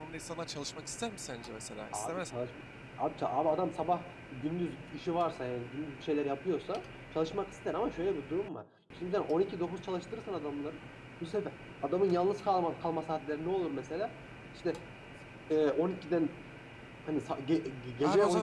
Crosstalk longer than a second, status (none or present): none